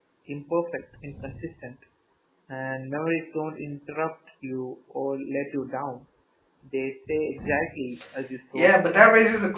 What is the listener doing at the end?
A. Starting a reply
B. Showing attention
A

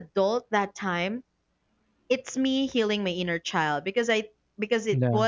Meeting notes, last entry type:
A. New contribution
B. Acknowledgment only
B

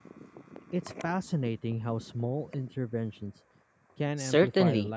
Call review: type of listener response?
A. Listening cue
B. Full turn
B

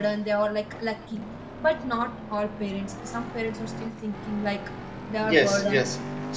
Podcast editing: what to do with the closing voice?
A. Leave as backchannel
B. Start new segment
B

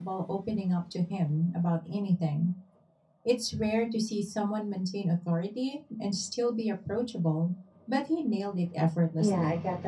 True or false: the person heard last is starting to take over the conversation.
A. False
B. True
B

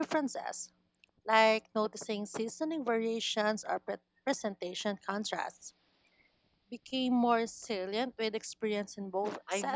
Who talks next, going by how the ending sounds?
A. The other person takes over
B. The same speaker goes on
A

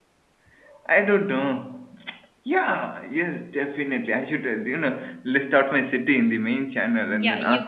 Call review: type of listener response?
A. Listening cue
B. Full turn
B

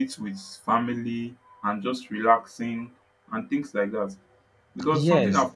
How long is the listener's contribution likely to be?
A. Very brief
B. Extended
B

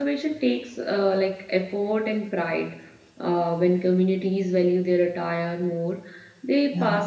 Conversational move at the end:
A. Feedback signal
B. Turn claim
A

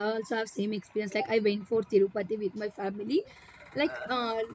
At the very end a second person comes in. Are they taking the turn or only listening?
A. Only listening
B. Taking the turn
A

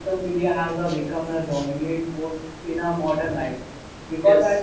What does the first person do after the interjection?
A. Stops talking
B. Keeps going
B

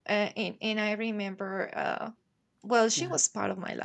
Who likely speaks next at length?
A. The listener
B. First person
B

